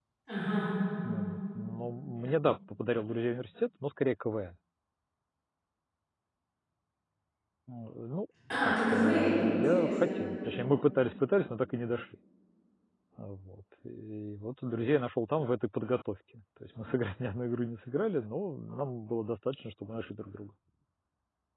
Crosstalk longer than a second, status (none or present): present